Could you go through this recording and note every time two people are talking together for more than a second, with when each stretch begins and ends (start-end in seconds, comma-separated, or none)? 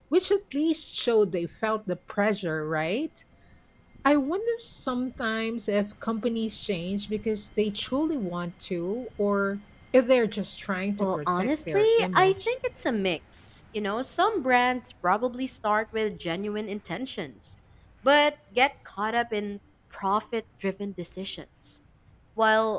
11.0-12.5